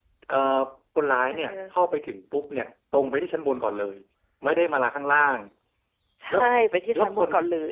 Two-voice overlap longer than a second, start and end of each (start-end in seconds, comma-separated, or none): none